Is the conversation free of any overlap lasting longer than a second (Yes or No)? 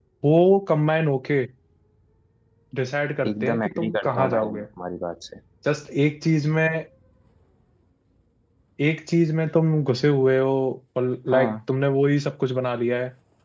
No